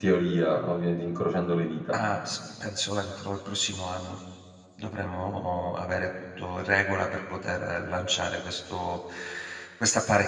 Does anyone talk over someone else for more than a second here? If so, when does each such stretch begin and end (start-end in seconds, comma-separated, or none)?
none